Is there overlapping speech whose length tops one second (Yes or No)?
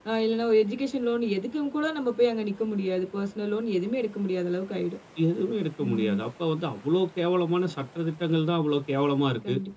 No